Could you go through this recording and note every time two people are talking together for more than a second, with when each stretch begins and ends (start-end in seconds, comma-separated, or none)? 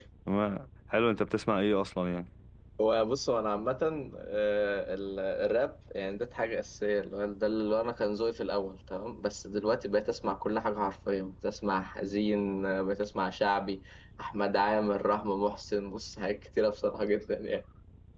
none